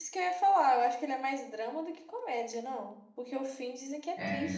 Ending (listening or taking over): taking over